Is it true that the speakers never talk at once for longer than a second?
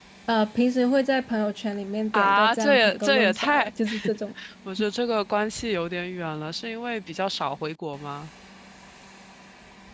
No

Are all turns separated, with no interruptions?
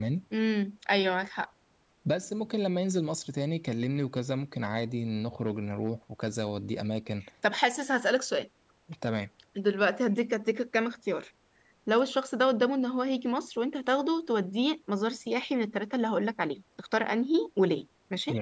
Yes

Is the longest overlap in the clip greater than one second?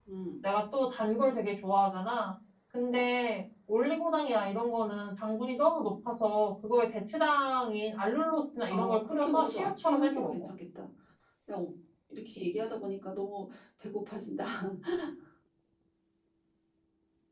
Yes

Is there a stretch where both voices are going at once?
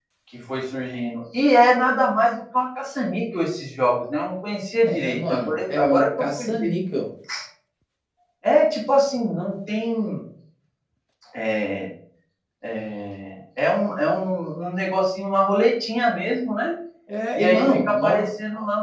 Yes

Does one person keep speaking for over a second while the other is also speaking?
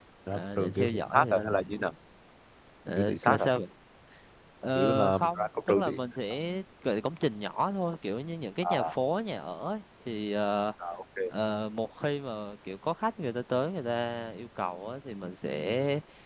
Yes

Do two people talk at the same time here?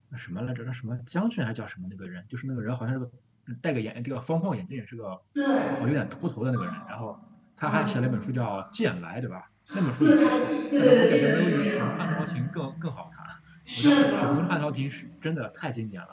Yes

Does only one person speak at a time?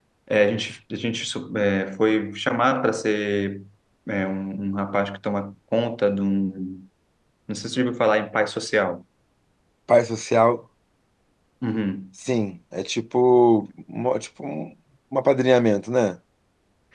Yes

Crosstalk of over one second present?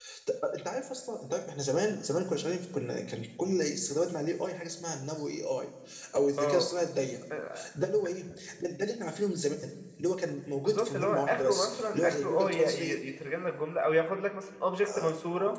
Yes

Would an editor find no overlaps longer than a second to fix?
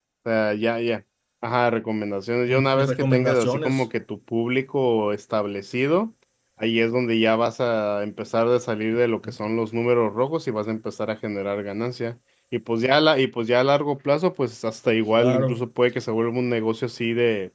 No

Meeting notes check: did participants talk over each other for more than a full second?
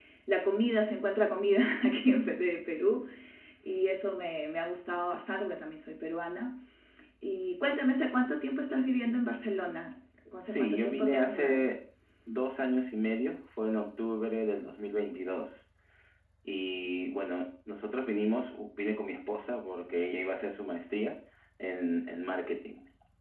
Yes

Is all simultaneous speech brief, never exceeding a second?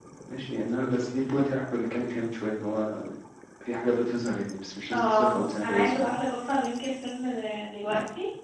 No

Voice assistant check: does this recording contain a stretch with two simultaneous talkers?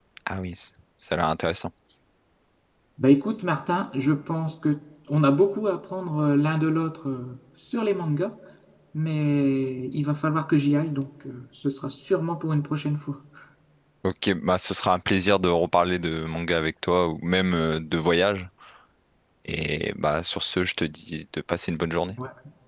No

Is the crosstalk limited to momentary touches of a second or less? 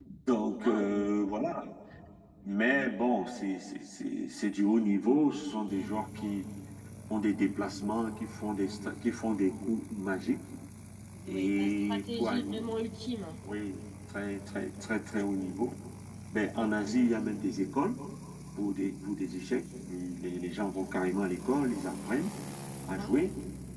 No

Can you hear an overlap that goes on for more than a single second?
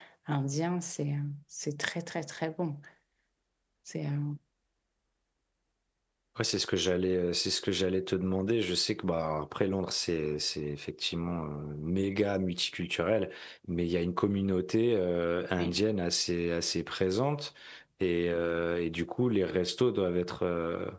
No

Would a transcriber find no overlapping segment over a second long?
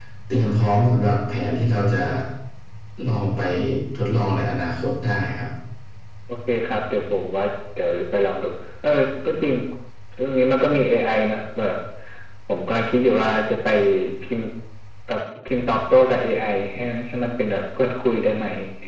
Yes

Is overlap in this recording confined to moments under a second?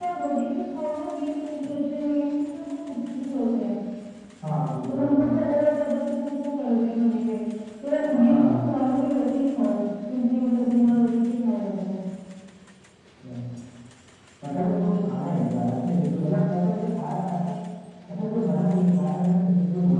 Yes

